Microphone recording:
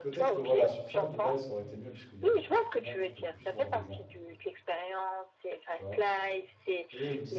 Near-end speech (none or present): present